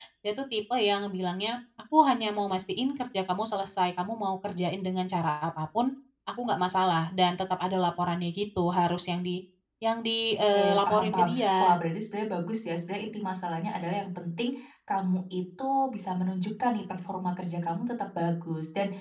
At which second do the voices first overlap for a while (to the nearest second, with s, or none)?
11 s